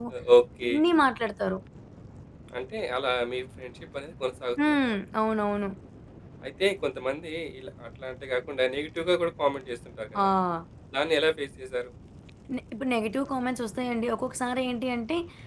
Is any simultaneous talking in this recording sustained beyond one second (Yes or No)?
No